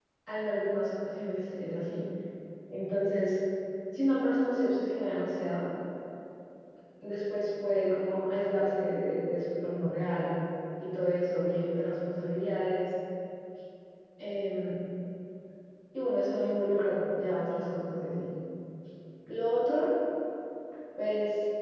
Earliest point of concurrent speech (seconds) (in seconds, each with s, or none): none